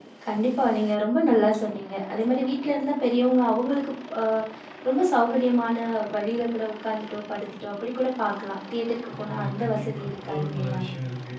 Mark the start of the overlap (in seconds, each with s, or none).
9.0 s